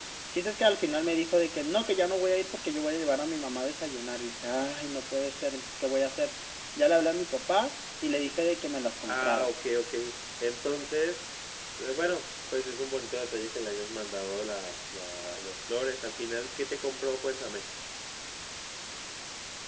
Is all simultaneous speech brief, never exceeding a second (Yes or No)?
Yes